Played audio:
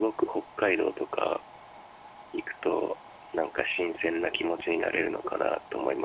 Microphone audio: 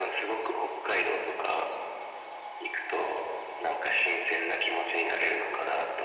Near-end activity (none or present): none